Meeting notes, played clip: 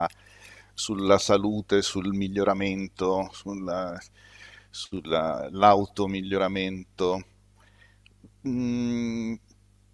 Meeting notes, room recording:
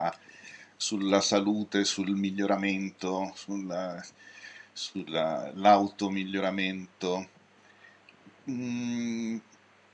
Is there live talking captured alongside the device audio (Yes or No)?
No